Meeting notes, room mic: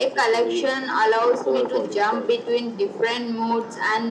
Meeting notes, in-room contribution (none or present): none